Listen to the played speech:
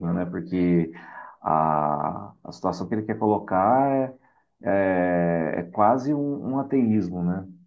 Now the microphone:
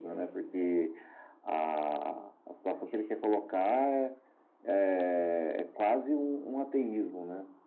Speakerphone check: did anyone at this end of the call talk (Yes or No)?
No